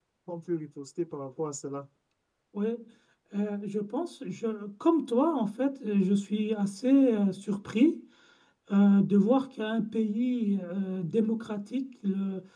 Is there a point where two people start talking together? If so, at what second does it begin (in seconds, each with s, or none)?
none